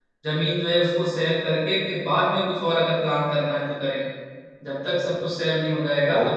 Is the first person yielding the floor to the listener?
Yes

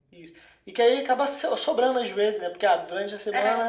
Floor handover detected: No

